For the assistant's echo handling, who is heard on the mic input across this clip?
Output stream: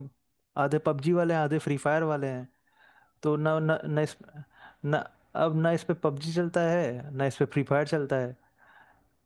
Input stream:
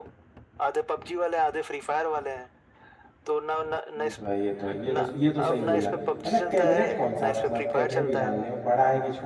both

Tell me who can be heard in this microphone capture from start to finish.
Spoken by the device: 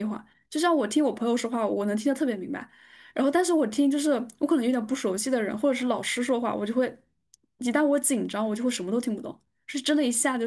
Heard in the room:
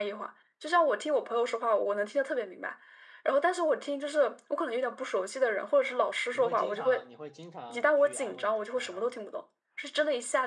both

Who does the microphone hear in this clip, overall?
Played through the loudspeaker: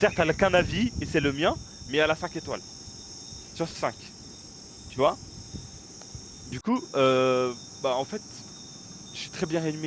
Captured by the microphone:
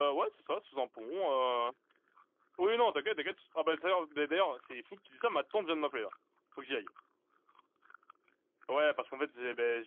user only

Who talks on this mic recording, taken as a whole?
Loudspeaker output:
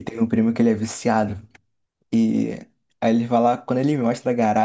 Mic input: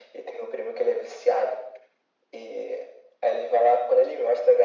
echo only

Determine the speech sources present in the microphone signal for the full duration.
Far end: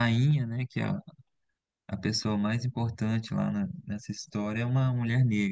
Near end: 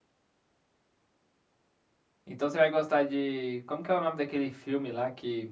user only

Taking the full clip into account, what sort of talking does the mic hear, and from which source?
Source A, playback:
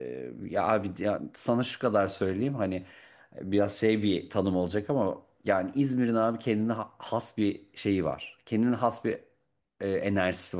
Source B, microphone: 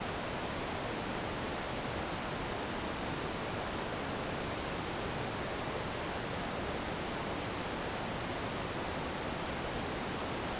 neither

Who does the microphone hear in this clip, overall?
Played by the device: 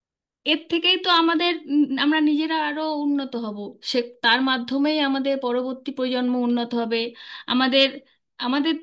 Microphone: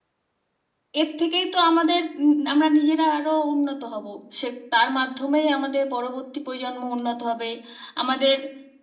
echo only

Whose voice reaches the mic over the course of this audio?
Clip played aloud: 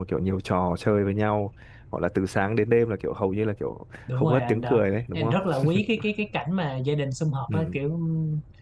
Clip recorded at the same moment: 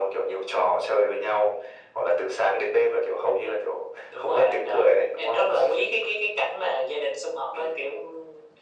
echo only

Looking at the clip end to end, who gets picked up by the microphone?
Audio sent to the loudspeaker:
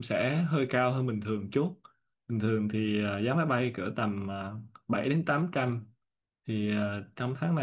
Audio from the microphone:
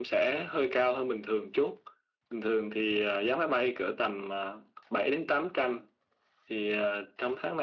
echo only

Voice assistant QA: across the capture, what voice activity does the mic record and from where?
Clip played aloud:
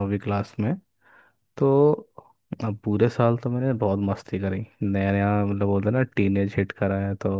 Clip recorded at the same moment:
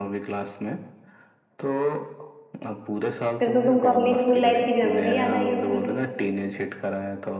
both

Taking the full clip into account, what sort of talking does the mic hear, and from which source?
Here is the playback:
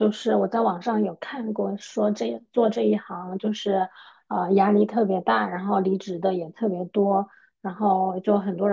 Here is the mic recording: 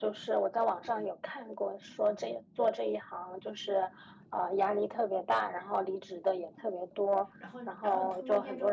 both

